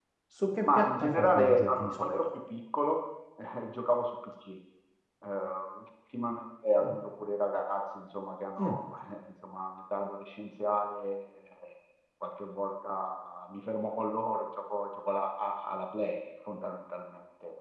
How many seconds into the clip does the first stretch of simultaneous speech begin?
0.6 s

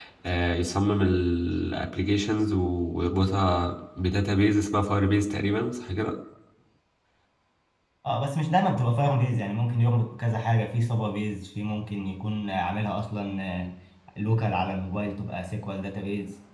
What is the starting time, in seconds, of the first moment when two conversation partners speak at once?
none

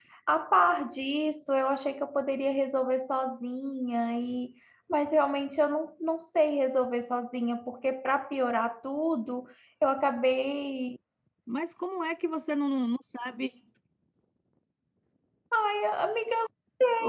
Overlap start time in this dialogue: none

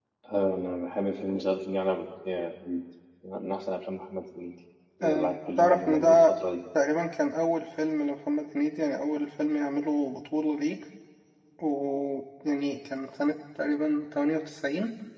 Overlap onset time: 5.0 s

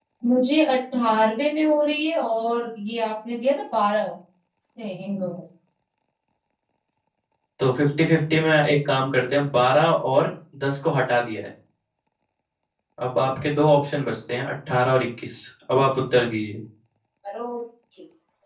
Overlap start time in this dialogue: none

